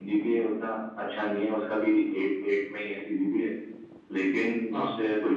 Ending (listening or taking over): listening